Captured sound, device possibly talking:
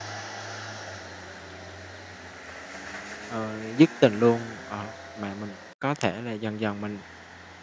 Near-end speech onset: 3 s

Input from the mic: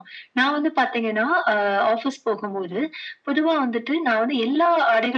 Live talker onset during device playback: none

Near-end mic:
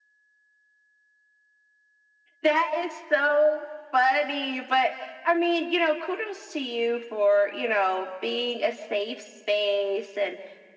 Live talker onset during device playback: none

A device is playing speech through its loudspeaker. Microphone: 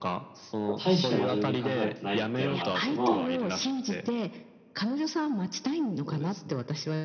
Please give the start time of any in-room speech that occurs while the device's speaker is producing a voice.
1 s

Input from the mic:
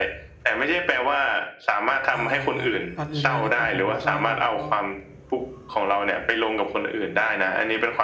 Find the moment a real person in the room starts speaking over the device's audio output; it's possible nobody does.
2 s

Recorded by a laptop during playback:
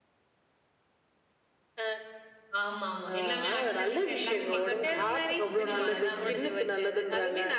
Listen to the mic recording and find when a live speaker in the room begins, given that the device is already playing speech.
3 s

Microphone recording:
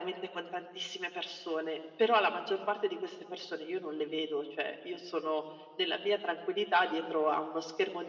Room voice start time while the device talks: none

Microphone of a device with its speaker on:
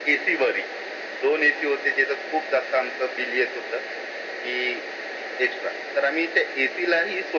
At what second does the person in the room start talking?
none

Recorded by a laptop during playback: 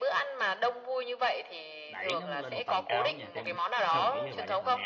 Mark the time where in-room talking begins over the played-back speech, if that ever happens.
2 s

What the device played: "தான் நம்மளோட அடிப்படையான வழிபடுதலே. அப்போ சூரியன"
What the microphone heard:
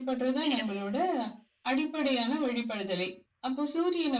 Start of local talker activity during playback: 0 s

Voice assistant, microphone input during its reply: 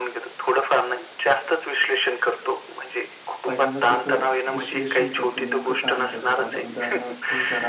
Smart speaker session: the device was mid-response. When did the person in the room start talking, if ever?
3 s

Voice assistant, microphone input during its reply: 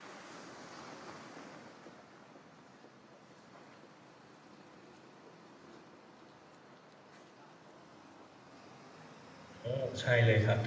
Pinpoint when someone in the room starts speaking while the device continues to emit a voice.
10 s

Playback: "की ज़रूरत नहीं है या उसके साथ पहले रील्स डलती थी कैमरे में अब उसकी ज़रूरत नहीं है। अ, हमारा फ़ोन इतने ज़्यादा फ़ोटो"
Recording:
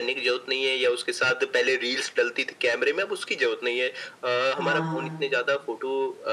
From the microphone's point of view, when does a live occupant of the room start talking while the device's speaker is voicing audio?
5 s

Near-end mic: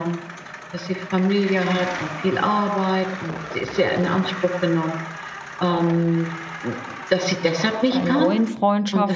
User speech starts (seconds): 8 s

